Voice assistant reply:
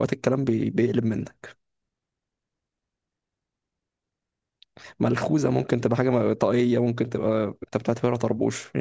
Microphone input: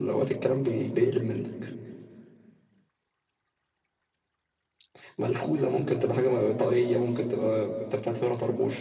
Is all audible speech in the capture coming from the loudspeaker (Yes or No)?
Yes